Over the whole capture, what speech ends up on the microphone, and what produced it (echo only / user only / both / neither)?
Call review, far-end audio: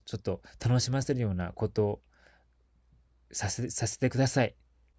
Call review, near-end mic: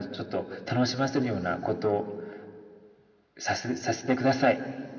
echo only